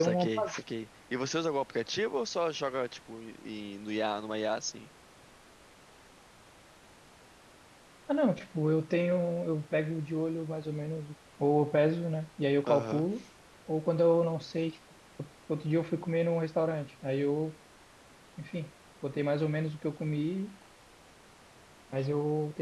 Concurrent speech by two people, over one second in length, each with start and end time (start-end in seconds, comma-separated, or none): none